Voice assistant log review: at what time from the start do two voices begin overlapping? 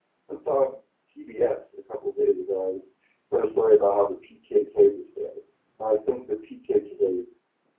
none

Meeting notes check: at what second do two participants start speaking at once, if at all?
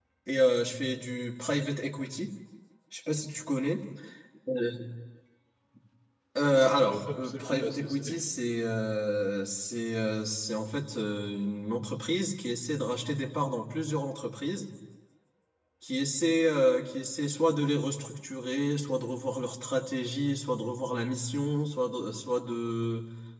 6.5 s

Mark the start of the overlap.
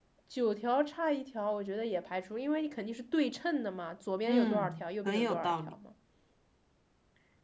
4.3 s

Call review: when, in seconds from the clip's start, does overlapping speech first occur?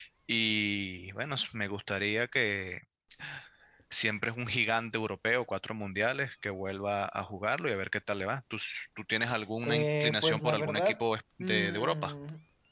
9.7 s

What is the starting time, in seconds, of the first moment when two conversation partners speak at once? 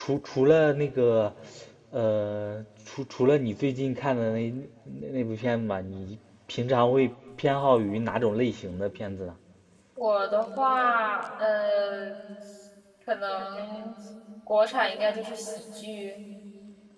none

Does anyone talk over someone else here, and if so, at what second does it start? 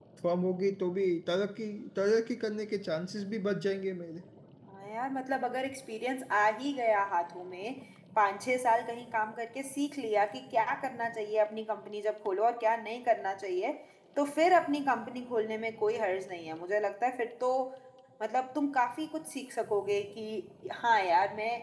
none

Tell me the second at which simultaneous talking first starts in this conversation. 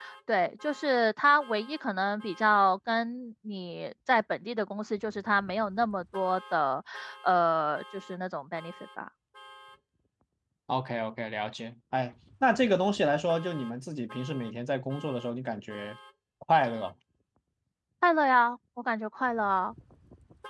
none

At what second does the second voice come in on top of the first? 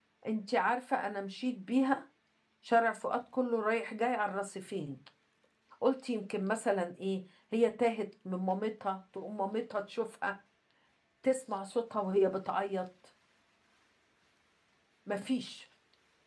none

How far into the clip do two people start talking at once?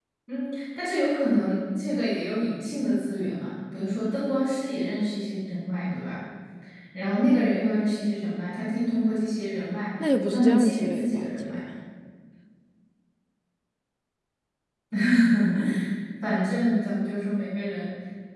10.2 s

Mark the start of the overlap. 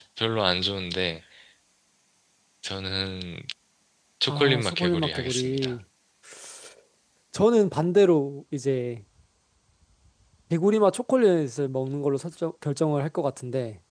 4.3 s

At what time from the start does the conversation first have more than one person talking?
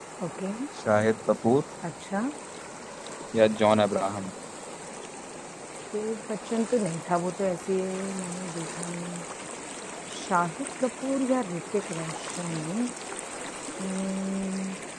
none

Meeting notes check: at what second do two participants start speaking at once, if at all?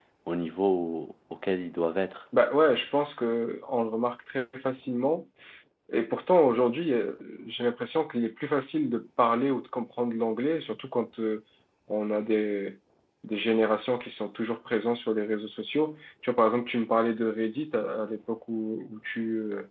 none

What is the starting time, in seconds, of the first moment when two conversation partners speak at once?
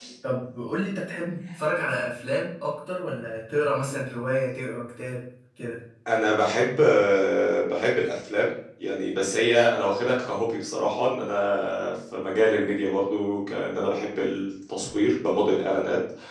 none

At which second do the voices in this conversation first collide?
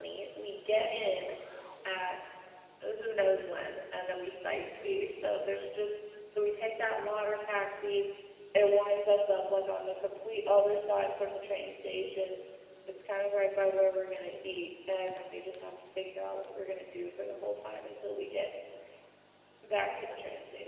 none

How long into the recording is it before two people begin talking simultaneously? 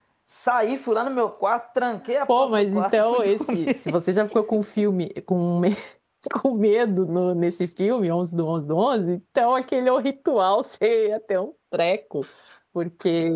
2.3 s

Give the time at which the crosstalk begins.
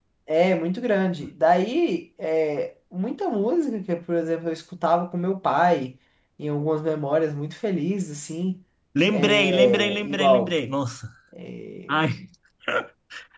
9.1 s

